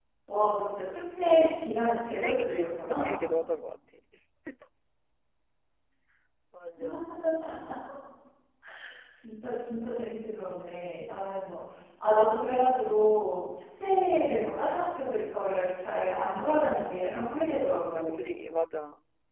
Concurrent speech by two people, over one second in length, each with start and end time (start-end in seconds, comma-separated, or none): 1.8-3.2